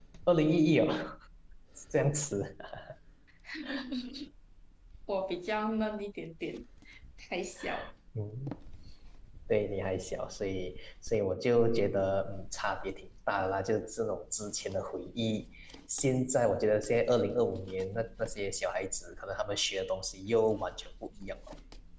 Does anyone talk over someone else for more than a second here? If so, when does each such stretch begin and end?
none

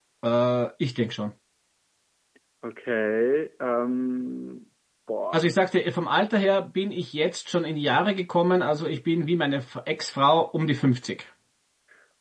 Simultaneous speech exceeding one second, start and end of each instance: none

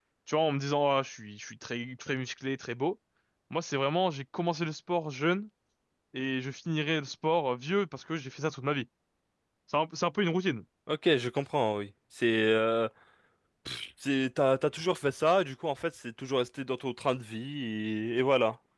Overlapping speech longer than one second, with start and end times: none

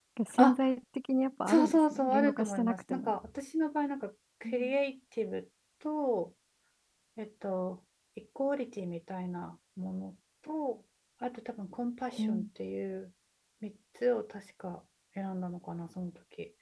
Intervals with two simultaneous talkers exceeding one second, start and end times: 1.5-3.2

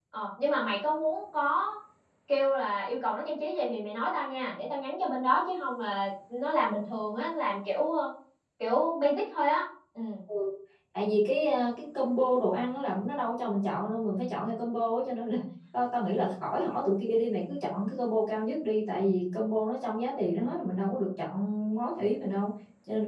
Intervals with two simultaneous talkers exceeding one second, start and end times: none

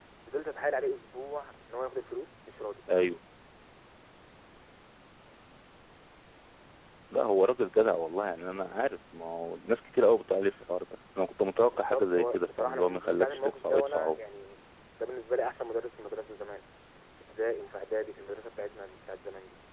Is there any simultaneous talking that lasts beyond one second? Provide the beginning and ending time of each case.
11.7-14.2

